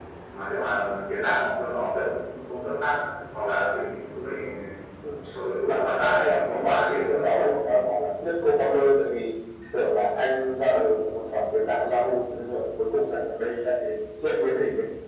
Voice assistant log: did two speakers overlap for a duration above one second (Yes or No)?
Yes